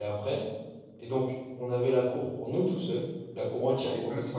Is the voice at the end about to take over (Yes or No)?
No